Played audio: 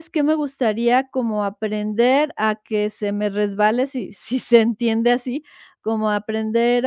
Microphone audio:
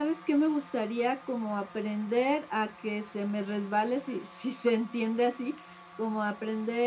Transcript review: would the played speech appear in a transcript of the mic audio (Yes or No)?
Yes